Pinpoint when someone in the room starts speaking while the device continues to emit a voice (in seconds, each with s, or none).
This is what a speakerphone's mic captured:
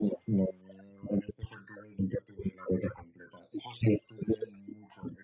none